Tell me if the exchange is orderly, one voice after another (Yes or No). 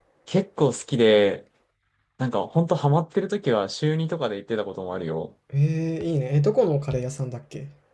Yes